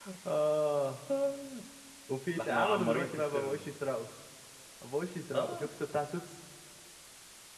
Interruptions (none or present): present